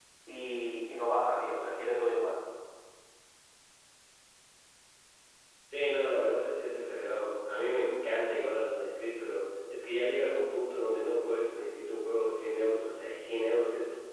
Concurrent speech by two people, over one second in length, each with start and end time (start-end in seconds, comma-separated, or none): none